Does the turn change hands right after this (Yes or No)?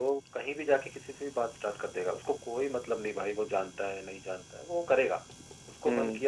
No